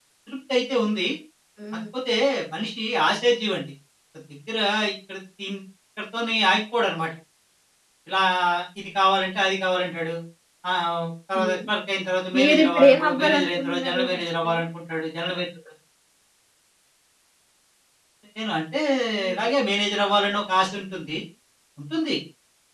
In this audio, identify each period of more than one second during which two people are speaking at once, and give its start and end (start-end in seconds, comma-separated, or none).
12.4-14.5